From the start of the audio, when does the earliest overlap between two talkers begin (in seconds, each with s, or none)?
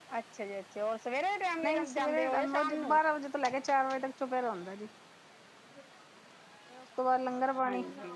1.6 s